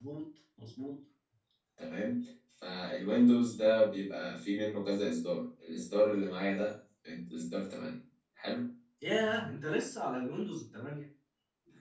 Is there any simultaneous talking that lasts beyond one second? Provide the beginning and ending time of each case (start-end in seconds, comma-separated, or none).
none